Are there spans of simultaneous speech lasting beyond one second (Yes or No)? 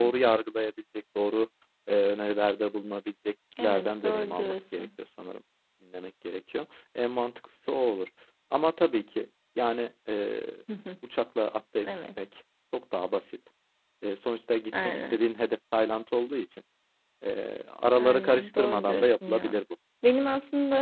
Yes